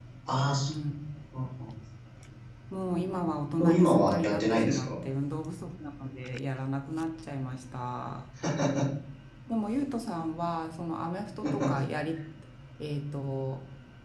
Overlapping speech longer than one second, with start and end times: 3.6-4.9

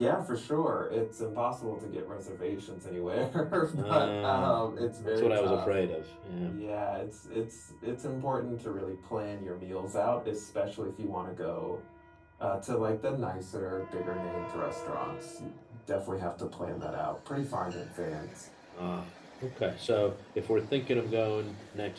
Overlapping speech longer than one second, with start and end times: 3.9-5.7

